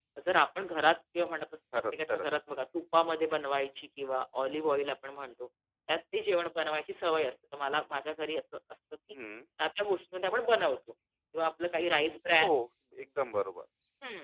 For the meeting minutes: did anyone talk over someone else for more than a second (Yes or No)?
No